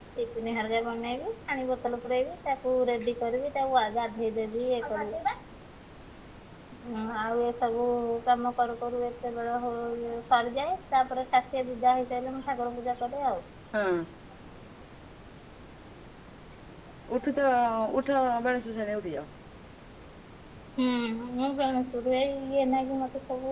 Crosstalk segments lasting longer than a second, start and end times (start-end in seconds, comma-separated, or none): none